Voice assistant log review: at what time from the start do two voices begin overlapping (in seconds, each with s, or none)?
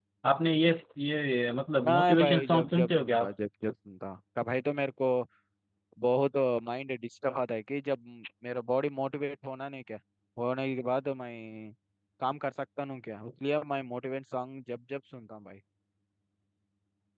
1.8 s